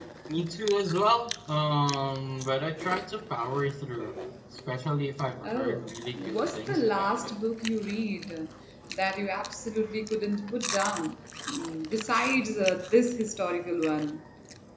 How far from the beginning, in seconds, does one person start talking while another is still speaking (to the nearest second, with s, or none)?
5 s